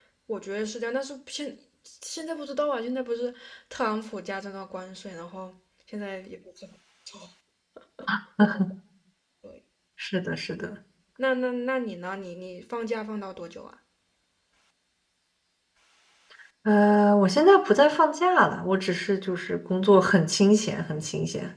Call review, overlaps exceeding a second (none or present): none